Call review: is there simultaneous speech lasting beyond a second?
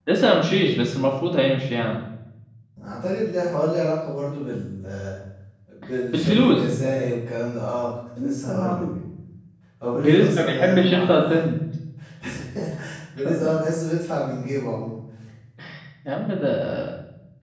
Yes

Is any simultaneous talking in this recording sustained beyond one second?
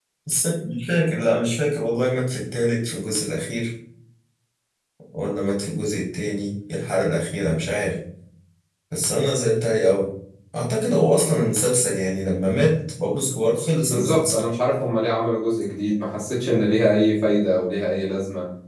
No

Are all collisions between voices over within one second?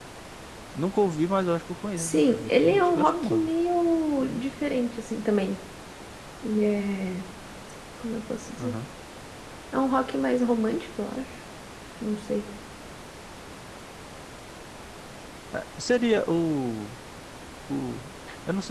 No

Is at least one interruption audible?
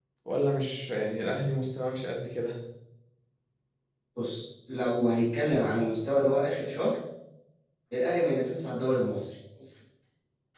No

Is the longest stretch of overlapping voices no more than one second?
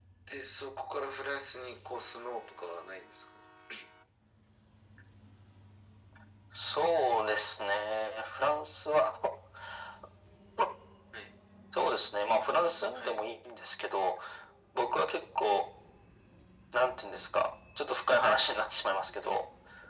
Yes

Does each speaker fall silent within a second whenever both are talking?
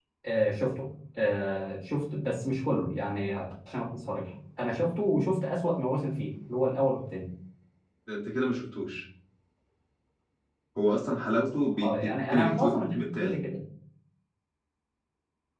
No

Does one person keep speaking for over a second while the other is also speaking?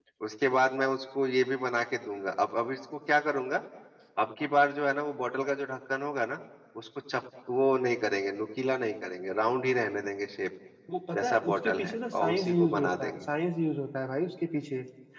Yes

